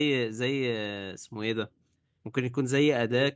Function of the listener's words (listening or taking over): listening